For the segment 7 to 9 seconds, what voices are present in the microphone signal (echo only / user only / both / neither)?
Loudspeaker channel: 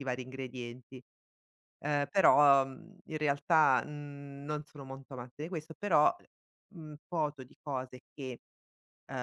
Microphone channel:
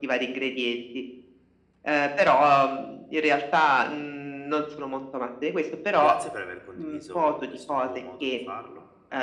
both